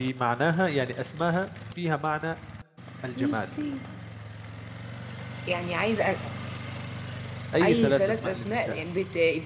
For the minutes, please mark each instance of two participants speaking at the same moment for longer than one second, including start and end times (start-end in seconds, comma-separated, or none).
7.6-8.8